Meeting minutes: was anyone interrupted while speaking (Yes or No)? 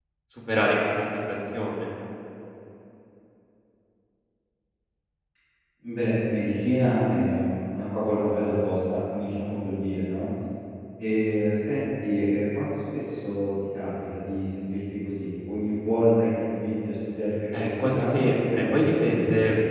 Yes